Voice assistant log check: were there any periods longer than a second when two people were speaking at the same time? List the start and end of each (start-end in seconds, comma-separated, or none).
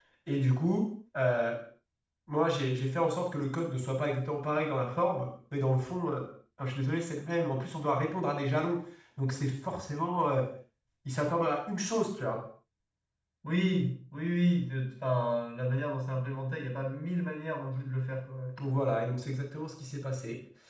none